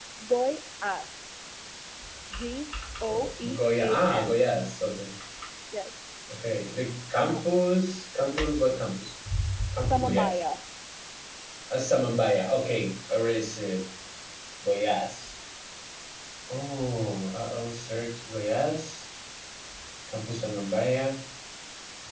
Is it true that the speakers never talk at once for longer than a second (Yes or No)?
No